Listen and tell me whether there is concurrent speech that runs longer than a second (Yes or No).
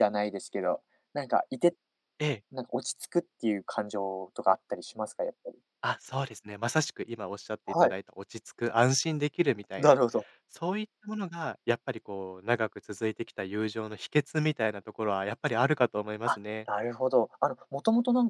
No